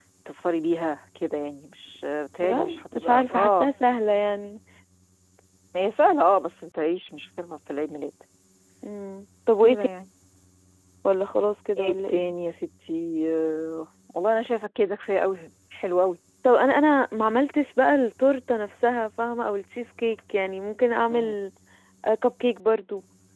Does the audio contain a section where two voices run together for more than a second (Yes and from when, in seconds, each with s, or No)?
Yes, from 2.4 s